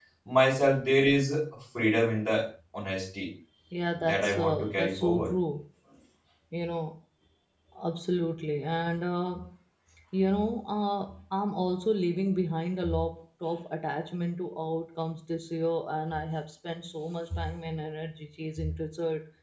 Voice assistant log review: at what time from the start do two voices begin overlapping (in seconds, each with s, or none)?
4.0 s